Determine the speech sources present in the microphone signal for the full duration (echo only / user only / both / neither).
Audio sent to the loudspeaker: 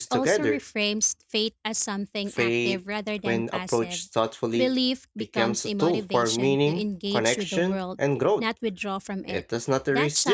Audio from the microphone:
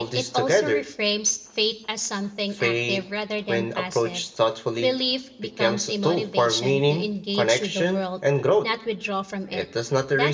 echo only